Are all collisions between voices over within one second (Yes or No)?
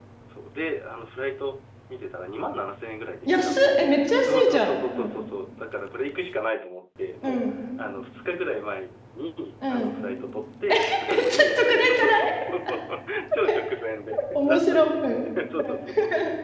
No